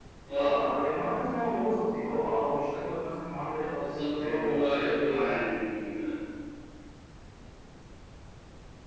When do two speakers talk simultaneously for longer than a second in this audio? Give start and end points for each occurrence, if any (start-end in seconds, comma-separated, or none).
3.7-5.5